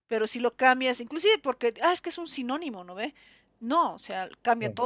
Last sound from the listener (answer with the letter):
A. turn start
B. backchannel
B